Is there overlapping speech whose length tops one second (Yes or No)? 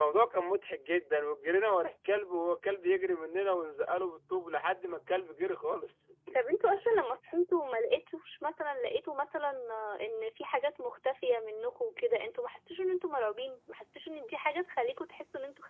No